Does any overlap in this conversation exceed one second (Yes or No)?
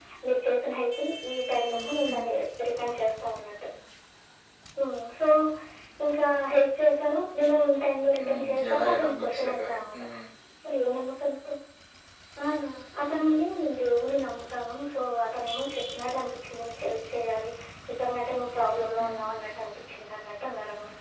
Yes